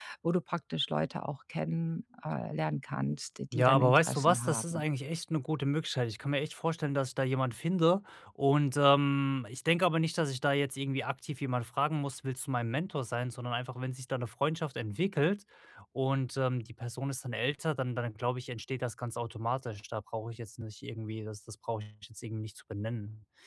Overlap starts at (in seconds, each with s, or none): 3.5 s